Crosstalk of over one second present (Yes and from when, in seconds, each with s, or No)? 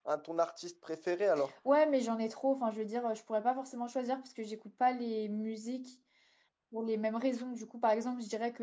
No